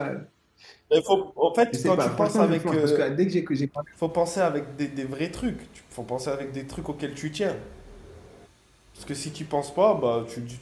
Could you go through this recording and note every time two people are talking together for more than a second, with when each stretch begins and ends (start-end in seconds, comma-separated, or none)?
1.7-3.0